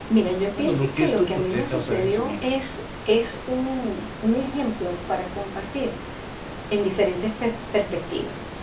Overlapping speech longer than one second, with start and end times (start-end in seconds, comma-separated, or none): 0.6-2.5